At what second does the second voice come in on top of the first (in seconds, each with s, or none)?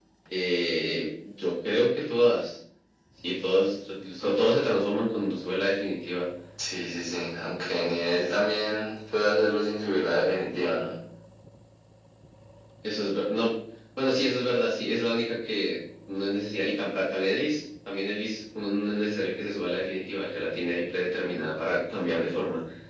none